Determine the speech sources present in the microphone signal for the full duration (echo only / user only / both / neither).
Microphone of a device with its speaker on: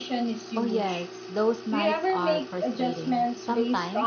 both